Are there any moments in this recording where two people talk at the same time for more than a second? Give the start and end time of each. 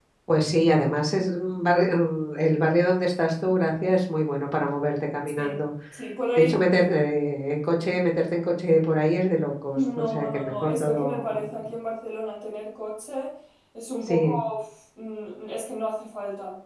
9.8-11.5

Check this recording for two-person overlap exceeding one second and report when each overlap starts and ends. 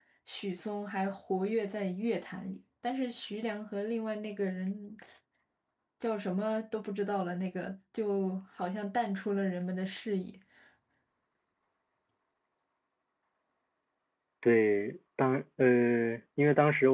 none

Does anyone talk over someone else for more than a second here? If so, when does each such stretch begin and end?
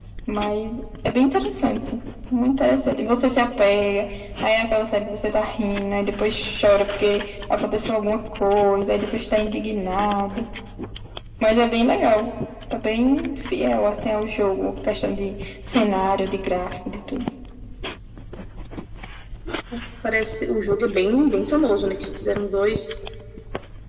none

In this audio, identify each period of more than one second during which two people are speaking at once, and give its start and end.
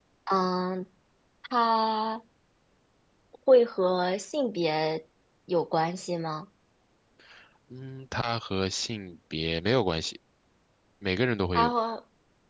none

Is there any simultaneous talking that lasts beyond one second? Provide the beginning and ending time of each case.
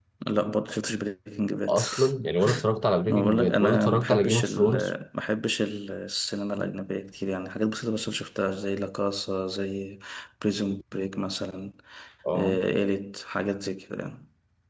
3.1-4.7

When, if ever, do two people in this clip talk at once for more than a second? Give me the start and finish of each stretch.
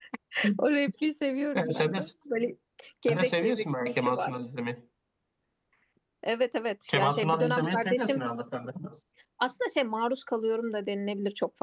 3.1-4.3, 6.9-8.2

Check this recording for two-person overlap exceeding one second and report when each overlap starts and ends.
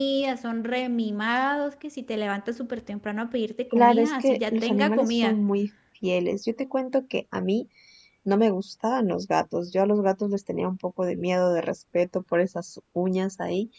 3.7-5.4

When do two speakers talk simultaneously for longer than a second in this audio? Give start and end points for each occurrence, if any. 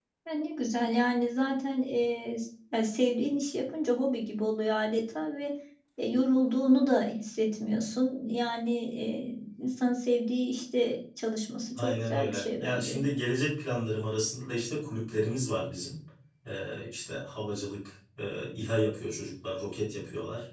11.8-13.0

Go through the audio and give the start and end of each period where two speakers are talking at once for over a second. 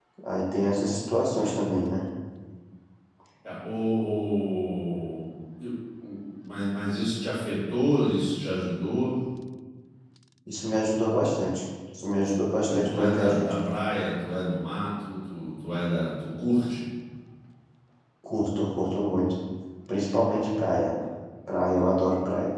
12.3-13.5

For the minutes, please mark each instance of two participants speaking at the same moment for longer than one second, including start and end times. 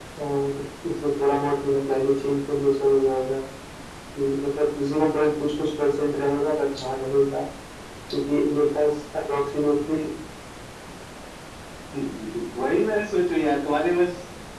none

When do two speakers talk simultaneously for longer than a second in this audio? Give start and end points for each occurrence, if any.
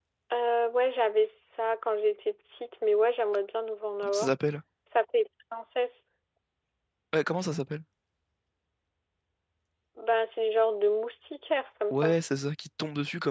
none

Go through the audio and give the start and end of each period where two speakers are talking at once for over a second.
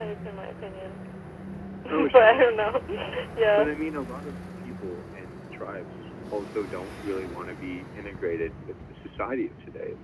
none

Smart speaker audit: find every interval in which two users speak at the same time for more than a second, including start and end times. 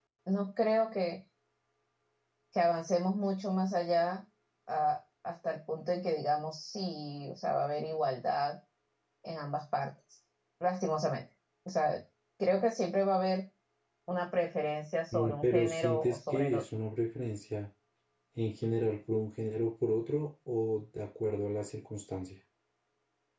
15.1-16.6

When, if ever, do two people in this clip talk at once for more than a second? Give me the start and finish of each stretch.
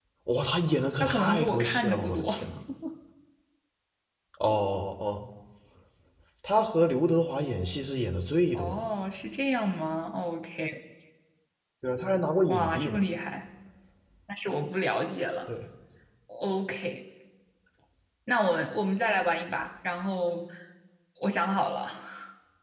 1.0-2.3

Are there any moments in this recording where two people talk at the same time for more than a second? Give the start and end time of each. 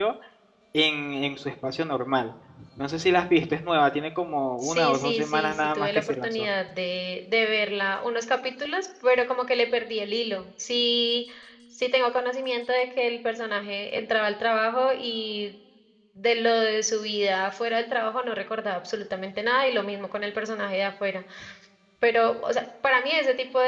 4.6-6.5

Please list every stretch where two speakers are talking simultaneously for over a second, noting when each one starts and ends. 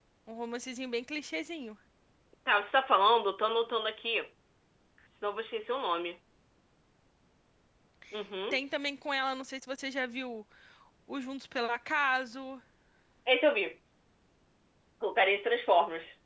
none

